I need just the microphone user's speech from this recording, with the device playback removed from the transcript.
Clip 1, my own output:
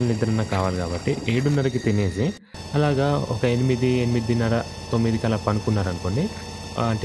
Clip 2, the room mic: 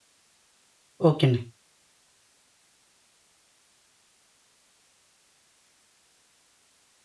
ఓకే అండి.

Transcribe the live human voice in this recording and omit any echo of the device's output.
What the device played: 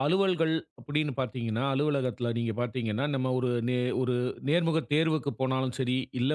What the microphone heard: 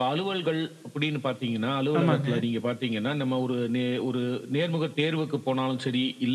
ஆமாங்க.

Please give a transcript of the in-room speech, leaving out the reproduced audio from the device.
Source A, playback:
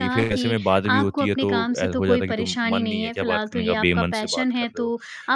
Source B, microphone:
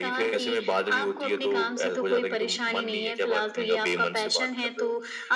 none

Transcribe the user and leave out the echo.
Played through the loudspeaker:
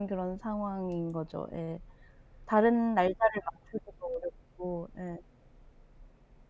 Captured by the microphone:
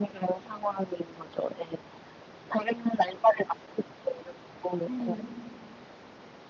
음.

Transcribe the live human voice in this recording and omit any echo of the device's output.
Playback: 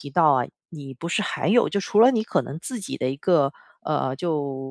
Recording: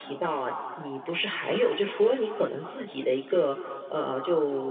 none

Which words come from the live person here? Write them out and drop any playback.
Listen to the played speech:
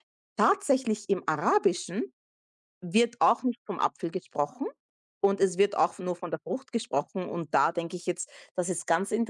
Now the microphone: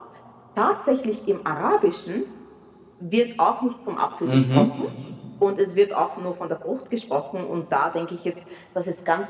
Mhm.

